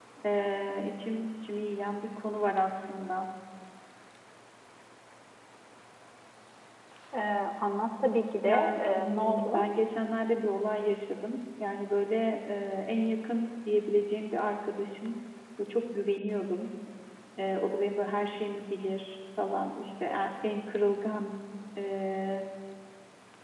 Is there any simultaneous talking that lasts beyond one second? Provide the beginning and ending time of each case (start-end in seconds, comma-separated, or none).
8.4-9.6